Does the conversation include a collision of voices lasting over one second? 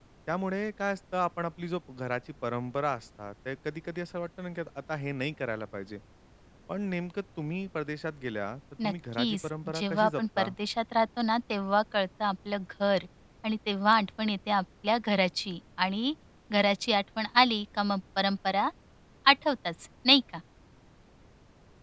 Yes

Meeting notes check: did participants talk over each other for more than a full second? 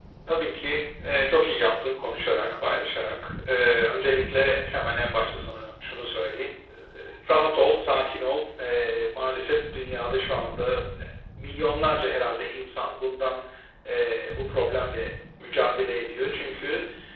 No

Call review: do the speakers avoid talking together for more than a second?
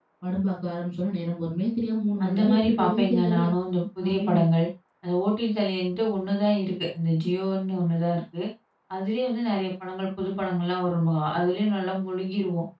No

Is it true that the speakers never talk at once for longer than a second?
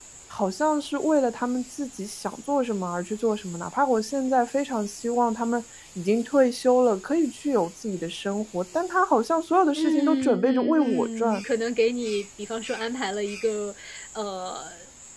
No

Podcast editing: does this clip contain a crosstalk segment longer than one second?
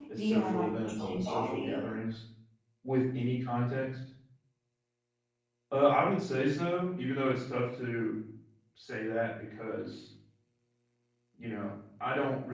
Yes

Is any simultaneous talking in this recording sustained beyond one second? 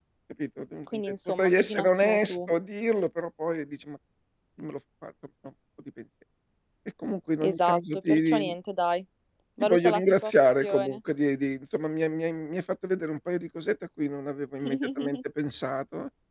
Yes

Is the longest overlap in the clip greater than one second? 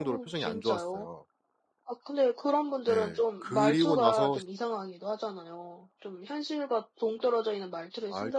Yes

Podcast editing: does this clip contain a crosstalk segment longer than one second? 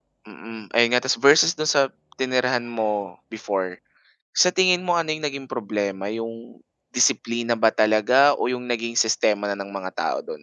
No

